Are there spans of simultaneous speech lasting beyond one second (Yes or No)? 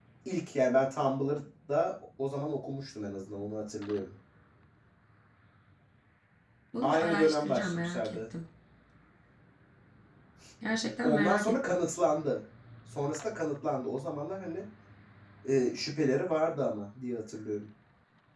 Yes